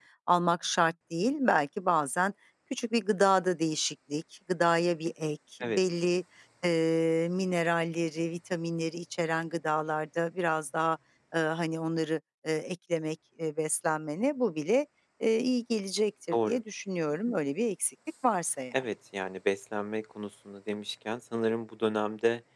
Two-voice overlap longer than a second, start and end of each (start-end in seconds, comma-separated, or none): none